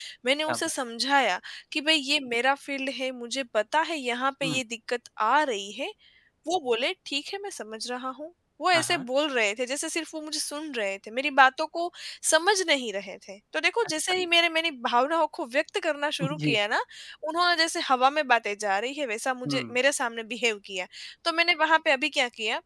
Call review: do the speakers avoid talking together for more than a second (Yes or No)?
Yes